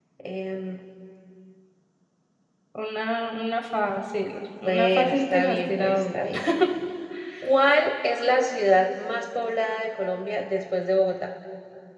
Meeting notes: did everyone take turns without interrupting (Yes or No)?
No